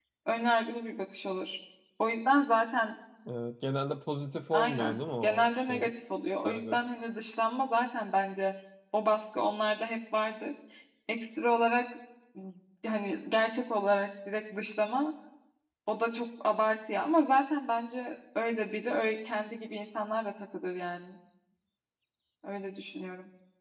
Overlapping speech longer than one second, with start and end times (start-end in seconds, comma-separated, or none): 4.5-5.9